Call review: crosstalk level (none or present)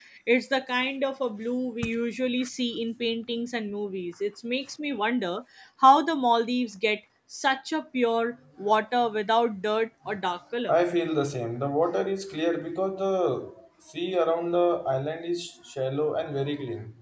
none